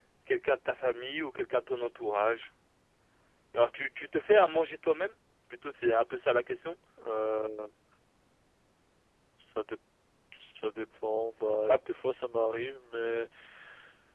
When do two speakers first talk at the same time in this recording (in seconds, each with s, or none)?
none